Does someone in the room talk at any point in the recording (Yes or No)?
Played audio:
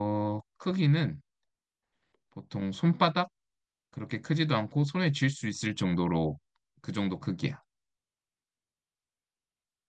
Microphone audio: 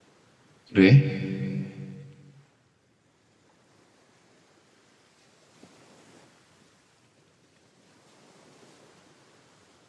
Yes